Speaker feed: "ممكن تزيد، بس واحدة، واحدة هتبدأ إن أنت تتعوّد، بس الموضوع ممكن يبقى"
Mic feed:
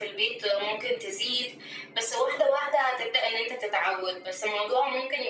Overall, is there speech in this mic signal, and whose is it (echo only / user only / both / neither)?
echo only